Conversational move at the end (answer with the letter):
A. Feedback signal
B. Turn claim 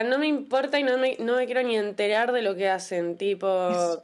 A